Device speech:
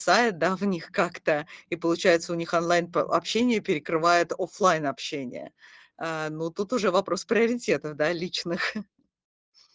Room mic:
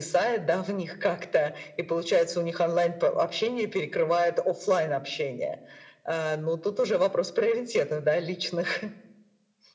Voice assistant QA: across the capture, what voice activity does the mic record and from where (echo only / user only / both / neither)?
echo only